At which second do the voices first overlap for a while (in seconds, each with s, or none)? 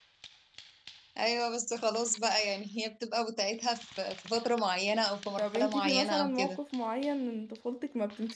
5.4 s